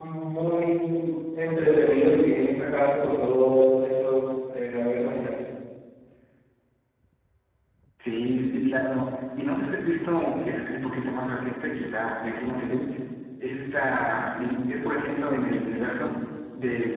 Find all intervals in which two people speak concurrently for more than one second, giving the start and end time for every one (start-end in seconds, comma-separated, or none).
none